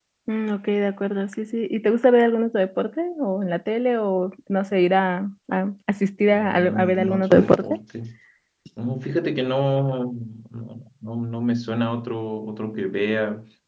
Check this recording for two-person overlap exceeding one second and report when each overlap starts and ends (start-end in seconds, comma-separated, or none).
6.3-7.8